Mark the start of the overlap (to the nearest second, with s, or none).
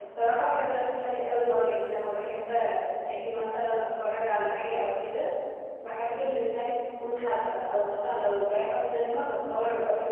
none